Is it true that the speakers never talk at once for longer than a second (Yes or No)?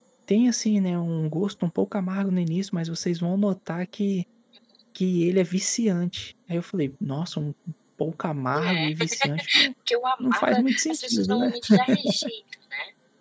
No